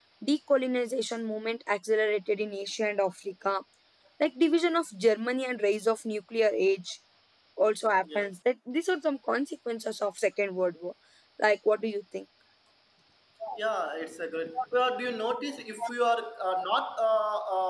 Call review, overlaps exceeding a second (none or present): none